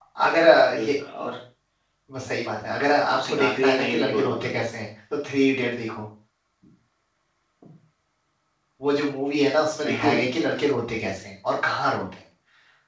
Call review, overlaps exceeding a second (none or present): present